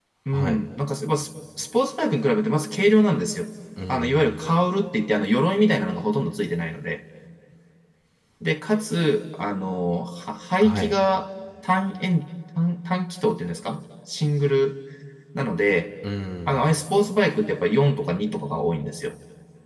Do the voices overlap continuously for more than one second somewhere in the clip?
No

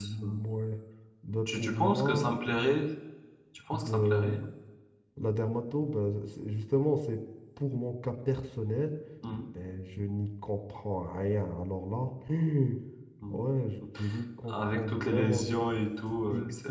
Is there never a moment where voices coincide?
No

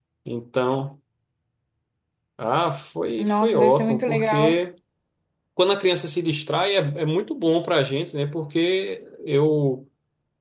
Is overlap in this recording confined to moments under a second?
No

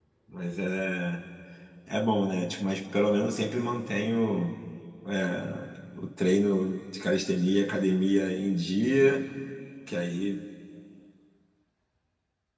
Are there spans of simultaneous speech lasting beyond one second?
No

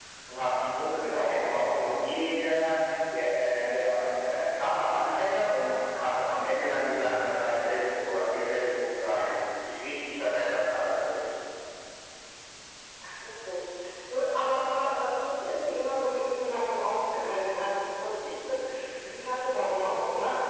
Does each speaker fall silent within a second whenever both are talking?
Yes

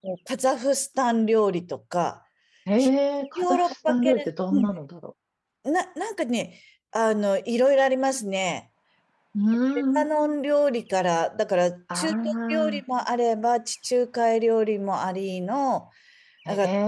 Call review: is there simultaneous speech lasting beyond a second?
Yes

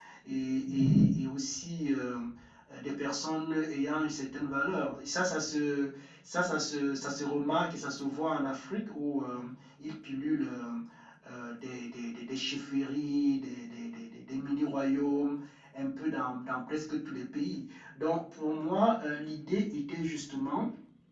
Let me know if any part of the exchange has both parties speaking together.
No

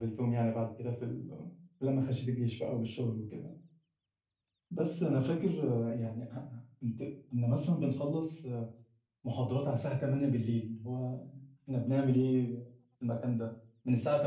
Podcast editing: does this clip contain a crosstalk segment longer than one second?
No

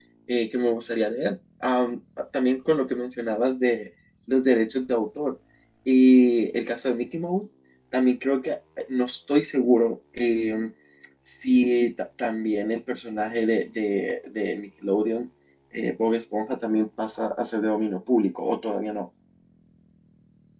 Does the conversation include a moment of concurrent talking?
No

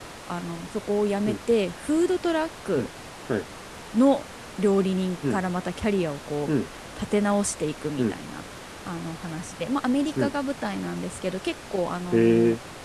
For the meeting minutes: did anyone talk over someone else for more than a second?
No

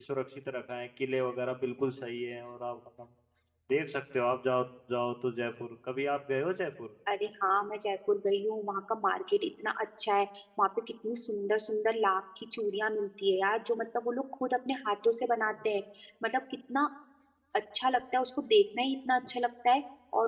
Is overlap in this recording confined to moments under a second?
Yes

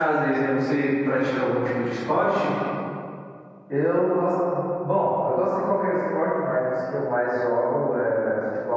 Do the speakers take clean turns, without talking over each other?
Yes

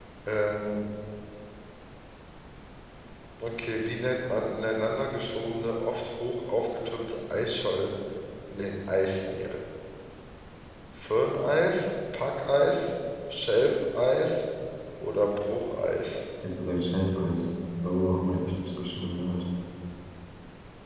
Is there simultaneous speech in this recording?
No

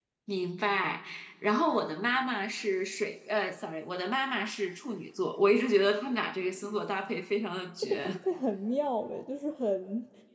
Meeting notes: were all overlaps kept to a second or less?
Yes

